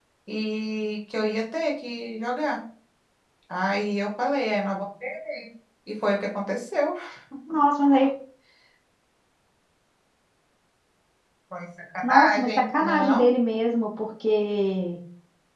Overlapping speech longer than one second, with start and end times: 12.1-13.3

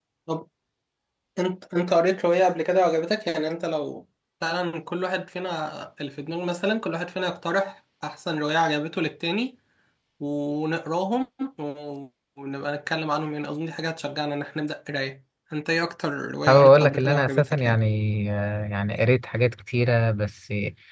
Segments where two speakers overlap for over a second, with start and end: 16.5-17.8

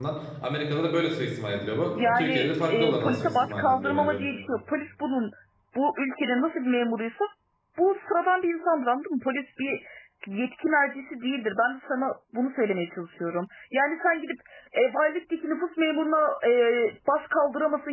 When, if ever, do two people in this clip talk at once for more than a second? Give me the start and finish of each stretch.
2.2-4.2

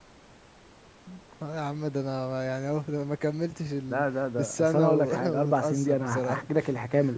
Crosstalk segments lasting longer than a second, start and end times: 4.4-6.4

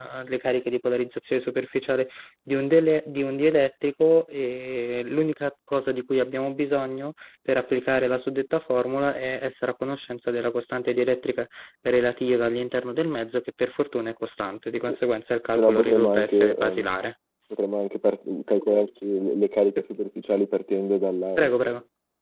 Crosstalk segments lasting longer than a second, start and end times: 15.6-16.9

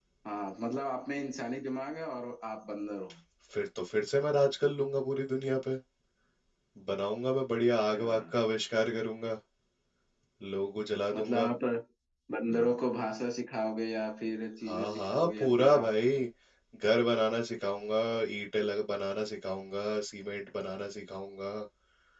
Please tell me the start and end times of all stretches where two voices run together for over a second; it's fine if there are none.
14.6-16.2

